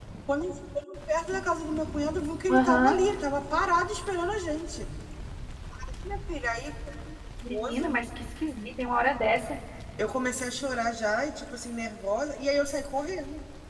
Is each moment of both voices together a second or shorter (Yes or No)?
Yes